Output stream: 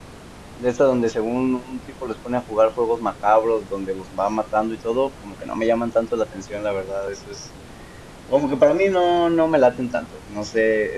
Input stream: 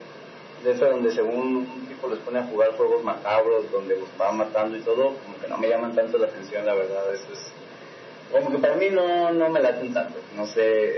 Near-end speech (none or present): none